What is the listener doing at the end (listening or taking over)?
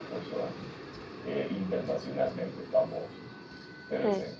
listening